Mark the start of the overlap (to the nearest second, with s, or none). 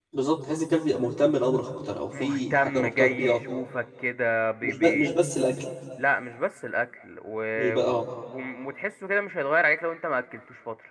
2 s